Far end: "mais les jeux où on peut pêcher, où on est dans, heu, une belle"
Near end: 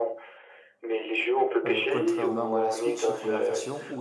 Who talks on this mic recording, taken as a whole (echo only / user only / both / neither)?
both